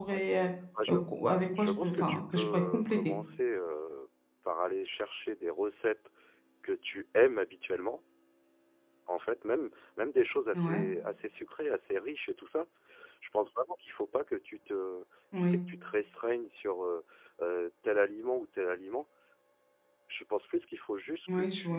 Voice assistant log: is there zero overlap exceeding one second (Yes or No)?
No